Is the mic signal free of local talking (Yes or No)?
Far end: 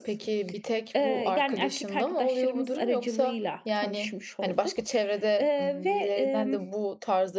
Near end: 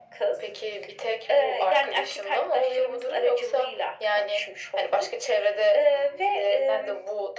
Yes